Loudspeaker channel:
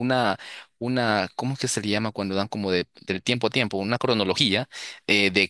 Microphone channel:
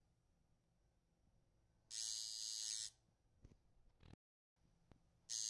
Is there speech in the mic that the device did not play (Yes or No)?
No